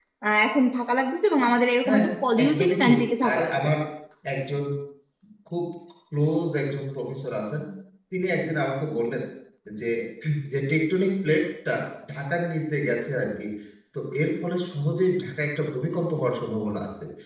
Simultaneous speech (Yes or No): Yes